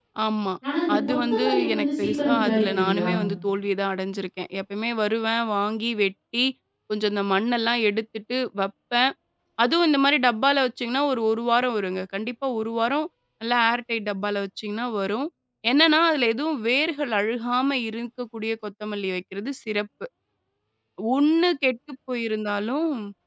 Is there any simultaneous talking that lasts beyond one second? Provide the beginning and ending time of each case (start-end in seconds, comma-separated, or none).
0.9-3.1